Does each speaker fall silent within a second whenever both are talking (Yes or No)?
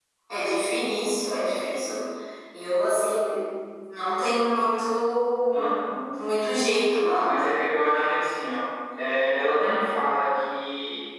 Yes